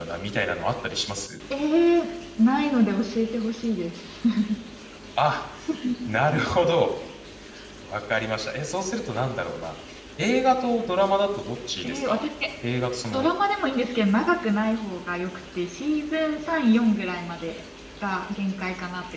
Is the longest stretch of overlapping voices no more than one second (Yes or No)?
Yes